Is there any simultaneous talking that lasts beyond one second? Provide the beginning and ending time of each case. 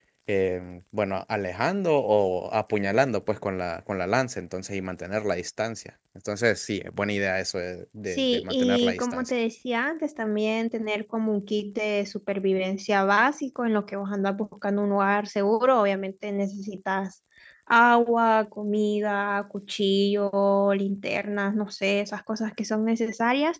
8.1-9.3

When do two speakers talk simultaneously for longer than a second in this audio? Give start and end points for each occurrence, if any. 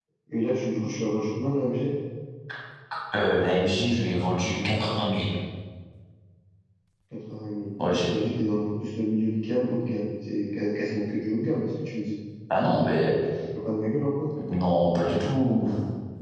none

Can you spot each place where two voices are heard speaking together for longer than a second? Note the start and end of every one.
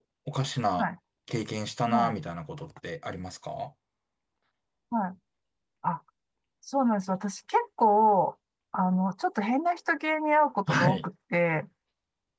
none

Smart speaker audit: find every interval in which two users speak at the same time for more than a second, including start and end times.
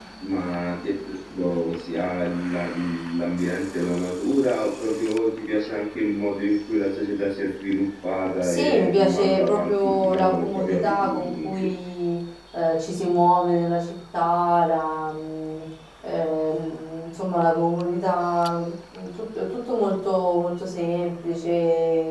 8.4-11.7

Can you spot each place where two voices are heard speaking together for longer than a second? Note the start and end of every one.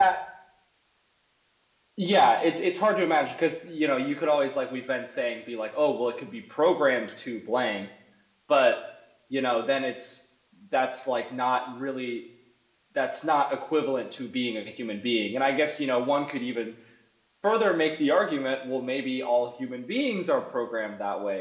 none

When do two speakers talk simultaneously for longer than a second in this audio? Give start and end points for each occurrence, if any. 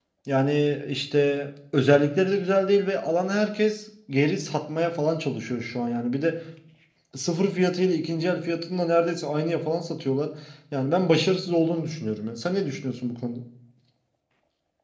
none

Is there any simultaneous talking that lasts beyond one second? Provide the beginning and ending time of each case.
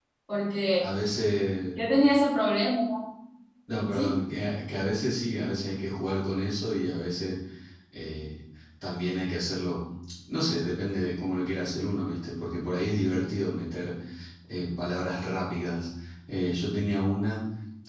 none

